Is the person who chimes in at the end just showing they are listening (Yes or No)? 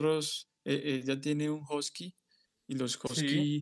Yes